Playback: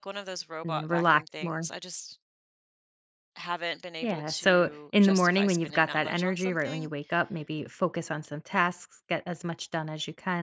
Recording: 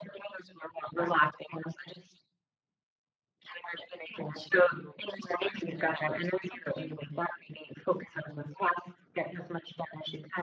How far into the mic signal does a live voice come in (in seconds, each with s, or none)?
none